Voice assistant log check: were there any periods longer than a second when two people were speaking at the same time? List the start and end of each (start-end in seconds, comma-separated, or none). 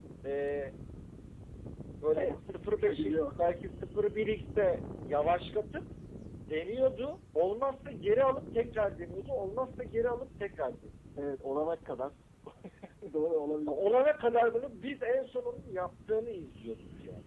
2.2-3.4